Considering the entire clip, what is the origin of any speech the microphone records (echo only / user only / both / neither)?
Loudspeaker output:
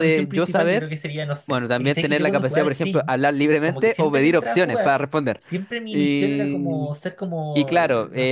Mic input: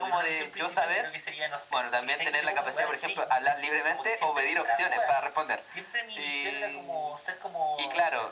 echo only